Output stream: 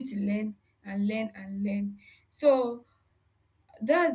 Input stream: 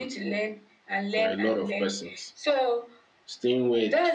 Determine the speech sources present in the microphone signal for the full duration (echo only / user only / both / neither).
both